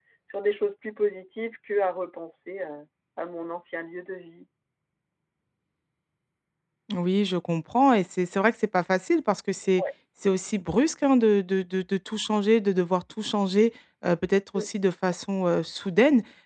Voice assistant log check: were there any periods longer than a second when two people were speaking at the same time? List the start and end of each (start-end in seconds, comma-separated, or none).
none